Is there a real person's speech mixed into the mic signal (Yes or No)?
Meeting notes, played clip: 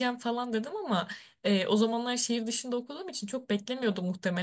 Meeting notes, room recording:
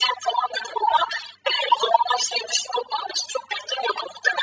No